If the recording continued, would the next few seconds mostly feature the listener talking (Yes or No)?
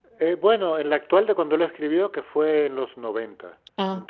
No